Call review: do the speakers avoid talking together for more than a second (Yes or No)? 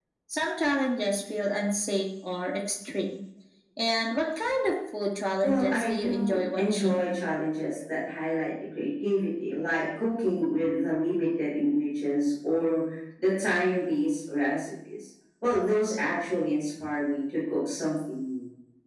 No